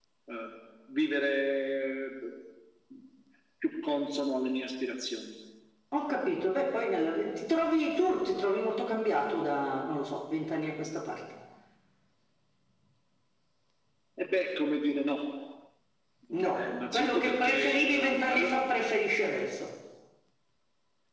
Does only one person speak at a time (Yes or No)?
No